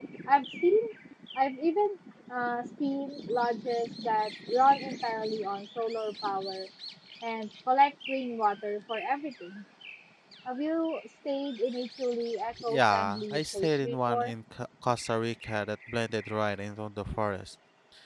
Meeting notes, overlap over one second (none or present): present